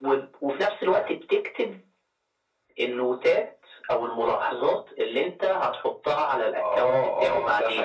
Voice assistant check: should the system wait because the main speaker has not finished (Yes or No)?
No